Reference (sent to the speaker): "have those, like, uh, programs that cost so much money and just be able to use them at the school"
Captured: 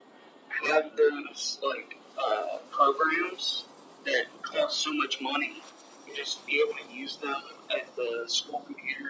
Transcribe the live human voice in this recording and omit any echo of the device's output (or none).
Yeah. Yeah.